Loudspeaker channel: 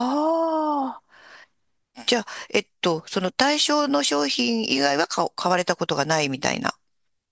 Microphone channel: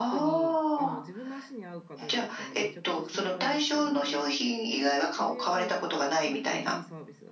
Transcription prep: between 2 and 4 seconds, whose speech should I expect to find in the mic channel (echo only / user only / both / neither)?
both